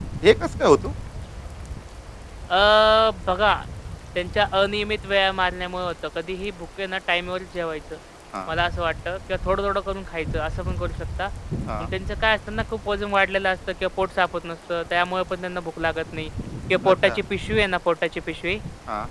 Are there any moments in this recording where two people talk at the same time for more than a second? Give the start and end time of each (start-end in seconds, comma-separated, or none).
none